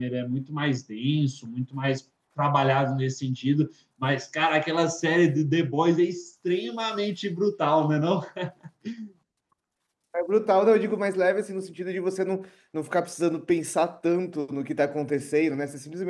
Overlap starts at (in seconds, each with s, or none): none